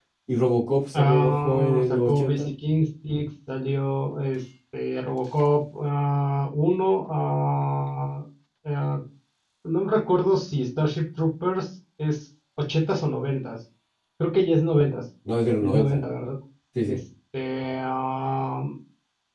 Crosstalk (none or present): present